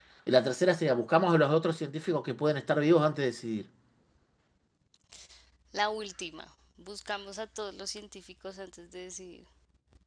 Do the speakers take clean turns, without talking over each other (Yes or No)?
Yes